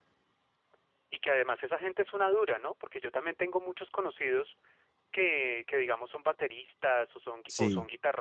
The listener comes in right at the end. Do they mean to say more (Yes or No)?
No